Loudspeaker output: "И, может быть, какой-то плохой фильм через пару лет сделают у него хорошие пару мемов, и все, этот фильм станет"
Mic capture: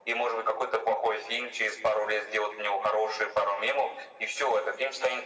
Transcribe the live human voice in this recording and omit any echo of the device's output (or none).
none